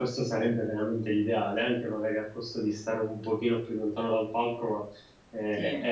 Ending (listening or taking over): listening